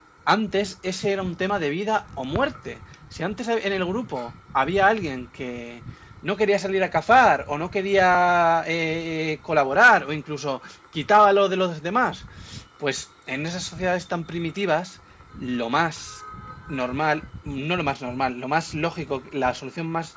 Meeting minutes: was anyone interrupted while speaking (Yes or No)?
No